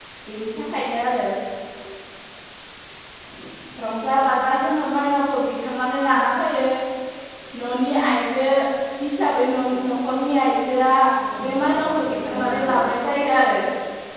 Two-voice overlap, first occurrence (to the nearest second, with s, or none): 11 s